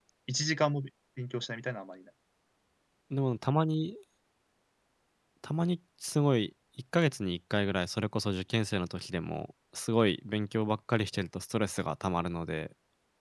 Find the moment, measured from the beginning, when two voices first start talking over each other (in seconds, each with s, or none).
none